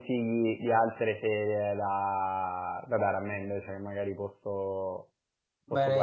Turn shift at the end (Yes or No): Yes